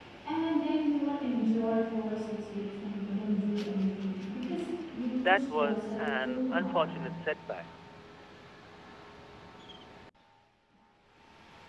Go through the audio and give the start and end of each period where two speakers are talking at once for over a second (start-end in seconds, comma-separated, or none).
5.2-7.0